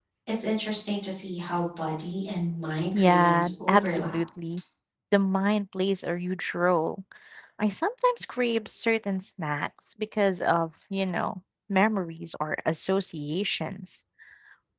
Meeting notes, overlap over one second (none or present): present